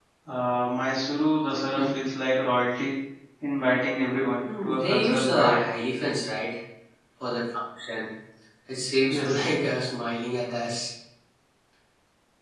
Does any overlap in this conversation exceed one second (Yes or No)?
Yes